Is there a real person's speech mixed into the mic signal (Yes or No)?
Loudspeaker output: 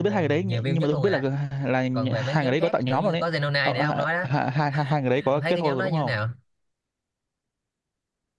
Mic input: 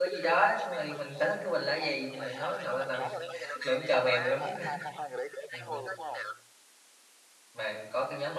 Yes